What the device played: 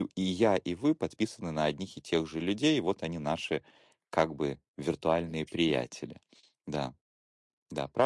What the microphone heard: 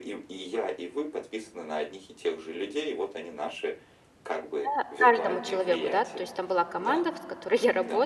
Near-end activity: present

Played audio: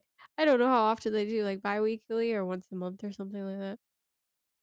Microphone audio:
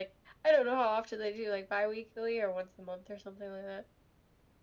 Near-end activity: none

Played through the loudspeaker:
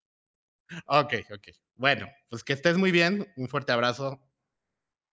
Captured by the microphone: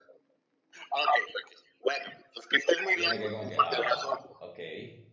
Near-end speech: present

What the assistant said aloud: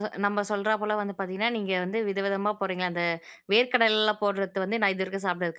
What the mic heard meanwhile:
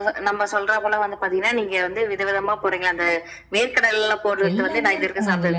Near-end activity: present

